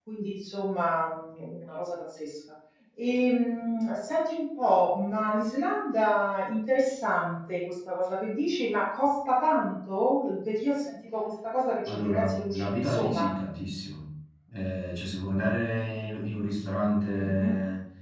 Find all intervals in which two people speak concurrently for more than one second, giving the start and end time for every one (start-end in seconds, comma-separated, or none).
11.9-13.4